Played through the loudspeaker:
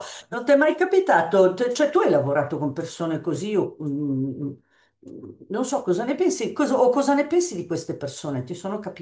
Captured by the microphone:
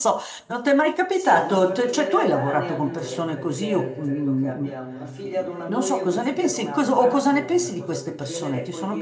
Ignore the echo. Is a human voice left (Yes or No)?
Yes